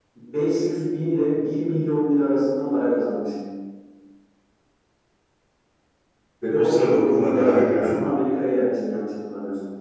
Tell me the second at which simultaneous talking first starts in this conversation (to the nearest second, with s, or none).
6 s